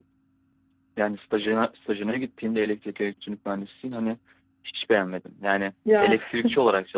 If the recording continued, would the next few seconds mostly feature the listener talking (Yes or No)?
No